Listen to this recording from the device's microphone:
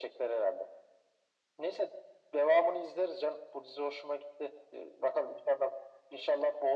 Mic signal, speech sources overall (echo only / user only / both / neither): echo only